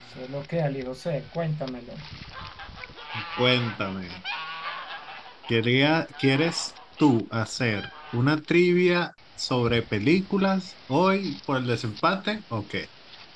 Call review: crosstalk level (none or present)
none